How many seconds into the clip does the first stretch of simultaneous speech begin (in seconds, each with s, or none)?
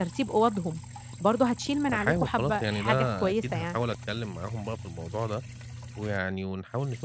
1.9 s